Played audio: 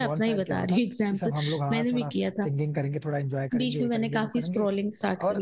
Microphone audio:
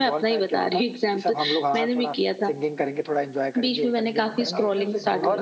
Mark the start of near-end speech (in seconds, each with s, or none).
4.3 s